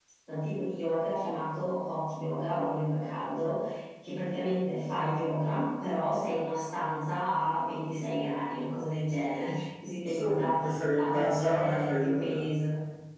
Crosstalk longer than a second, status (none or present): present